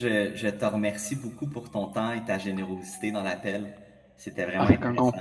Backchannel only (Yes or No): No